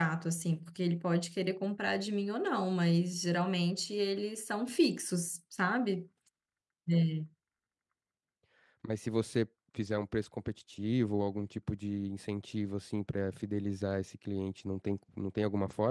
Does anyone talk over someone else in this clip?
No

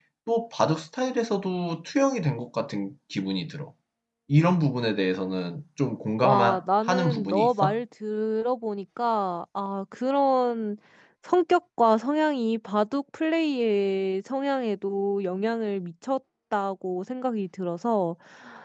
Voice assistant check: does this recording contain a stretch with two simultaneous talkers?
Yes, from 6.2 s

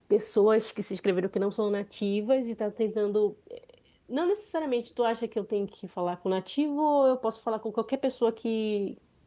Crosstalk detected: No

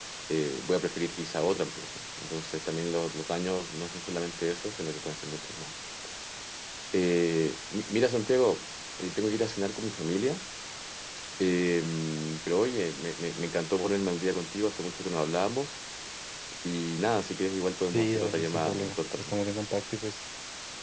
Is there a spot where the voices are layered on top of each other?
Yes, from 17.9 s

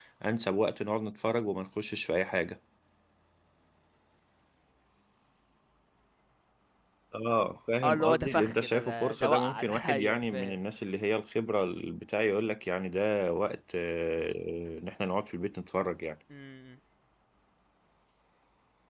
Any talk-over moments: Yes, from 7.8 s

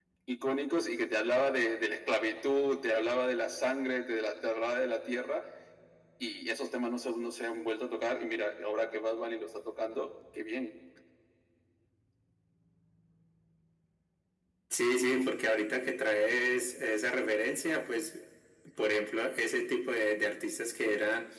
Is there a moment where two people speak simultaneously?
No

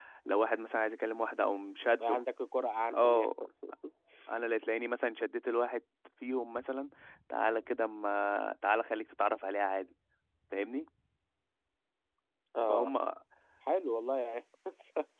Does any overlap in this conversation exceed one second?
No

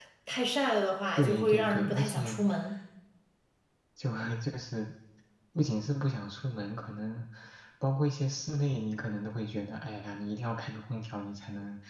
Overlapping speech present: Yes, from 1.2 s

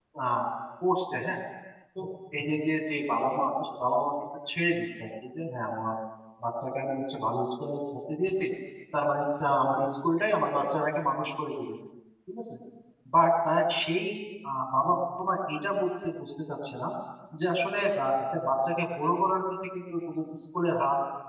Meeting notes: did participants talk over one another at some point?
No

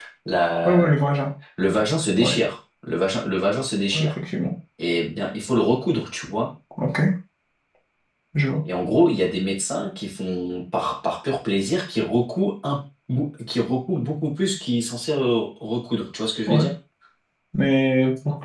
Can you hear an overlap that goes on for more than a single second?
No

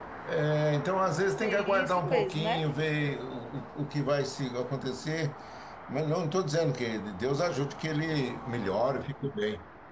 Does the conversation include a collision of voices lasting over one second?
Yes, from 1.4 s

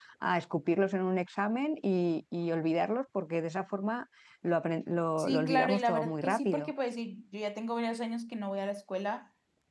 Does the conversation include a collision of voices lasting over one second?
Yes, from 5.2 s

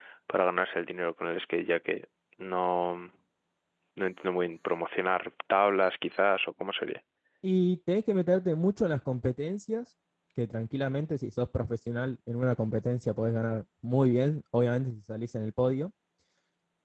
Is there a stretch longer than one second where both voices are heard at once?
No

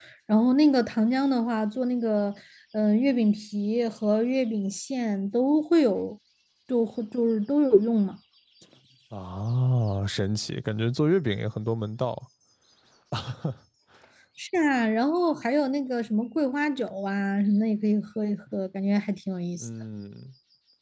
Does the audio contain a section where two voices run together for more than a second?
No

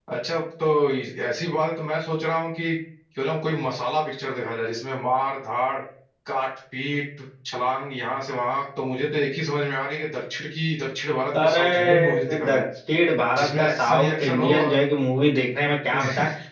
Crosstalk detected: Yes, from 11.4 s

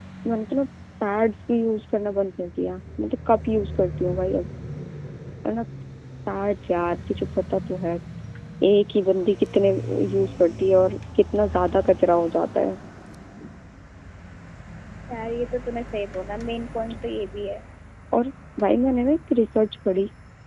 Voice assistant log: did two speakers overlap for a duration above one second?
No

